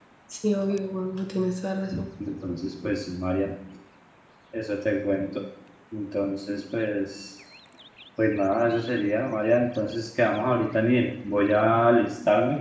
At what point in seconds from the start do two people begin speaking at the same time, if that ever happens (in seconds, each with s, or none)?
none